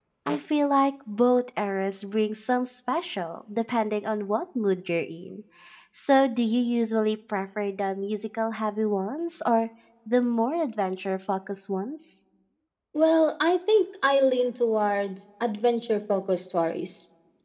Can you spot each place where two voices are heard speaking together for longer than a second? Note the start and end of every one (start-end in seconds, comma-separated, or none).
none